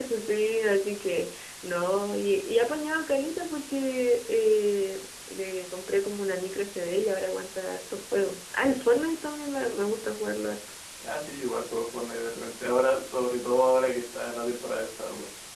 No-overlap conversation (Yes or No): Yes